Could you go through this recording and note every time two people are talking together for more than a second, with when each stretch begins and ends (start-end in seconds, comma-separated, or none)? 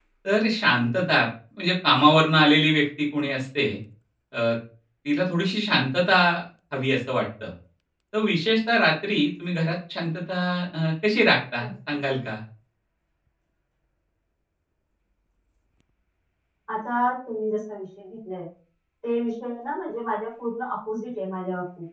none